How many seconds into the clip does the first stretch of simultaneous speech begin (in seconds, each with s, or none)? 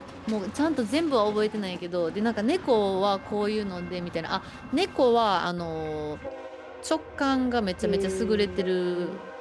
7.8 s